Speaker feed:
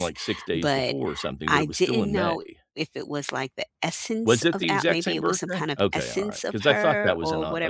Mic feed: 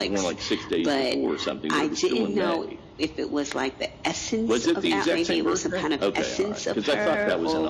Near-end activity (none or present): none